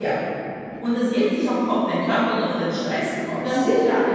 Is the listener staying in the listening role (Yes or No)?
No